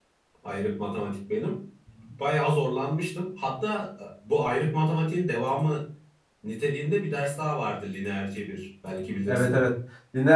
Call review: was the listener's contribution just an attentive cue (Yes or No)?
No